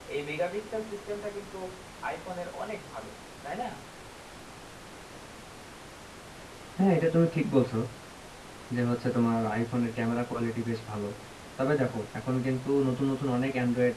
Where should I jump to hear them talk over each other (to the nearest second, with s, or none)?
none